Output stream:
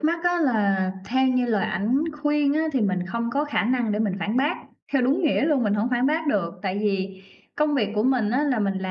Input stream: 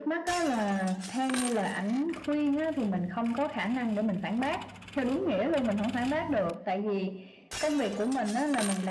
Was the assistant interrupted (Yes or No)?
No